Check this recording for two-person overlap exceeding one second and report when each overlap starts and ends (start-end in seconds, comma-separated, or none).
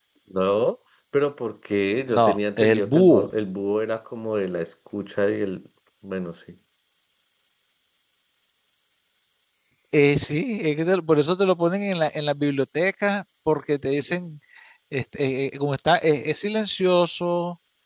2.1-3.3